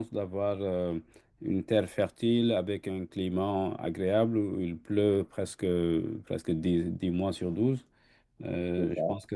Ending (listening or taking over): listening